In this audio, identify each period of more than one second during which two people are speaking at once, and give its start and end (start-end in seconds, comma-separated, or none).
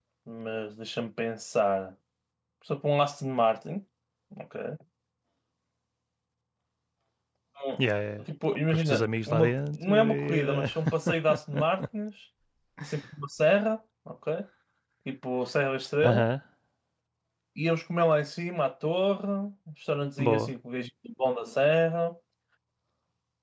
8.7-10.7